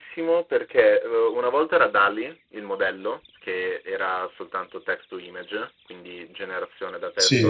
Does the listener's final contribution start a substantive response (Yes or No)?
No